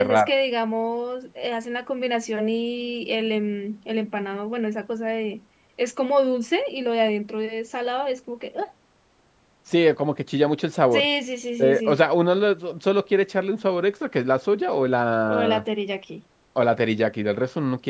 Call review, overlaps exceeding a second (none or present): none